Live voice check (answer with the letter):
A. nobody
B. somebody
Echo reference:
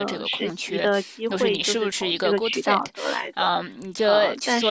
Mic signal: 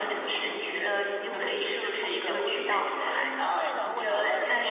B